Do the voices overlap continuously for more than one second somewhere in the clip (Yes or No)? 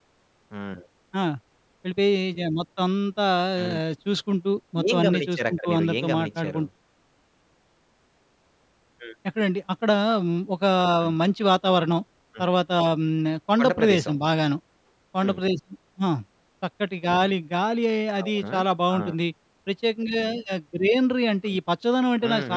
Yes